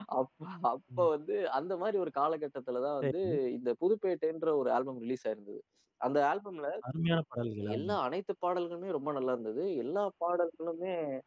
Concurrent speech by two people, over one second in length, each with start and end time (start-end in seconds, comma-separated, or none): none